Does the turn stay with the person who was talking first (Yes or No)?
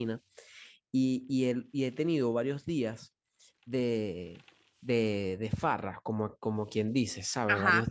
Yes